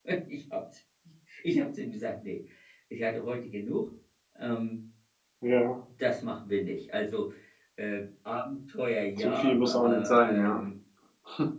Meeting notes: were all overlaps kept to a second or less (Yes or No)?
No